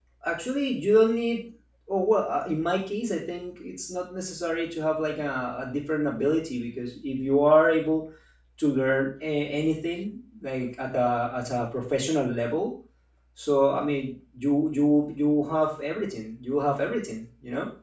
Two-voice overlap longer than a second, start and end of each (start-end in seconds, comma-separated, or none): none